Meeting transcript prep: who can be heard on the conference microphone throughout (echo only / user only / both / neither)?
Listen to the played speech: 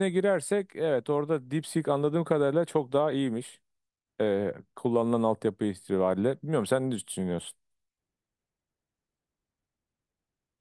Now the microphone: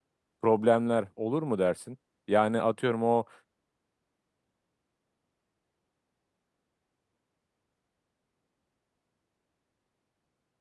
user only